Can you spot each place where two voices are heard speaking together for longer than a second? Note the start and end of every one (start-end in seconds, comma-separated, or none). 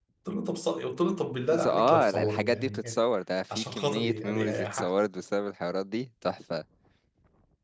1.5-3.0, 3.5-4.9